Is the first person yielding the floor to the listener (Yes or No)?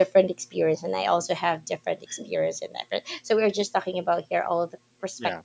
No